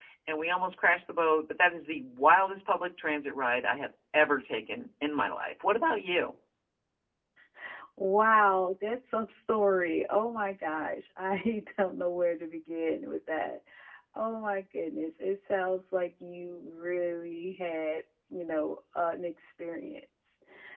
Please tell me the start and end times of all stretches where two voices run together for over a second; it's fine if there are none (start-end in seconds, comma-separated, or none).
none